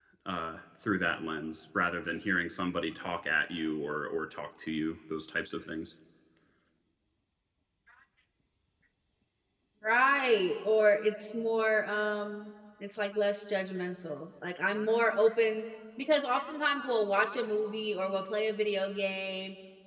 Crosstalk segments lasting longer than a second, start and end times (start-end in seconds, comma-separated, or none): none